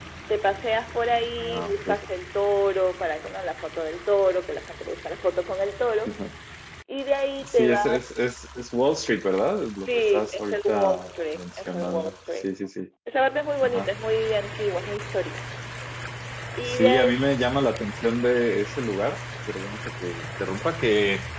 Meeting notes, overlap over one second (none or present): present